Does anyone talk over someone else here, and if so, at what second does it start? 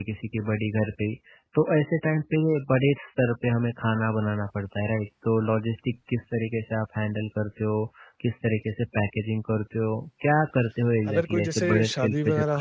11.1 s

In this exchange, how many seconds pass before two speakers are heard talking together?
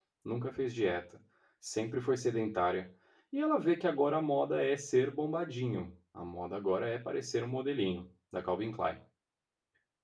none

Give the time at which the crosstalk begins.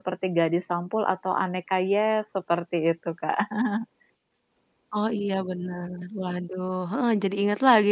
none

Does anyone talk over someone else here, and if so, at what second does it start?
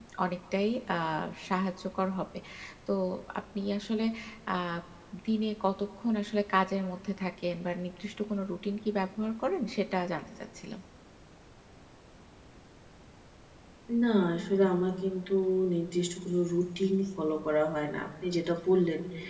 none

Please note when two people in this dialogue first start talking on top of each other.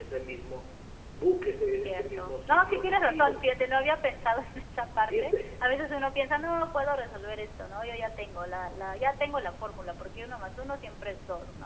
1.8 s

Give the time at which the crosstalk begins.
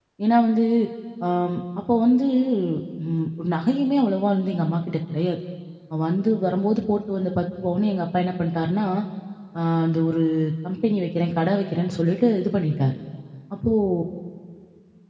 none

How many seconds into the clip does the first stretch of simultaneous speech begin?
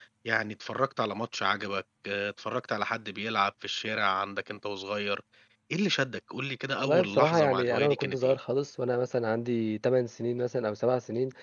6.8 s

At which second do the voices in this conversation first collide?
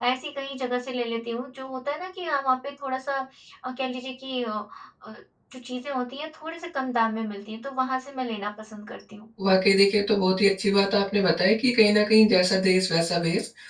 none

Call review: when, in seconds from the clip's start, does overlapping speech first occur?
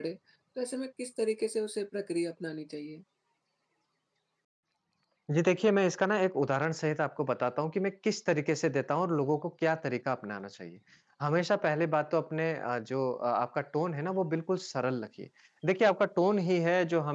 none

